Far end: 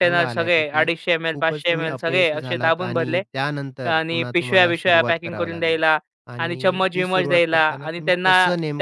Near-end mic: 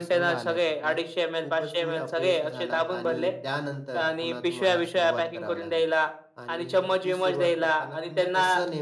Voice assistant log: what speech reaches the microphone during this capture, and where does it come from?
echo only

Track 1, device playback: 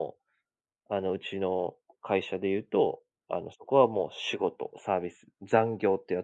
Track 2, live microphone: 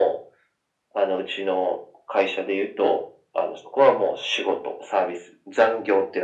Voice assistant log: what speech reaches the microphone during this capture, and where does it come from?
echo only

